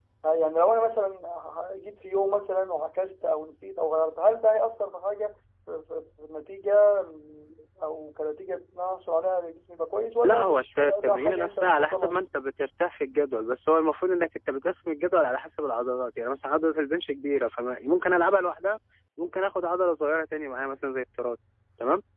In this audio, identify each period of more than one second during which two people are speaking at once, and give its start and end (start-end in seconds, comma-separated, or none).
10.2-12.2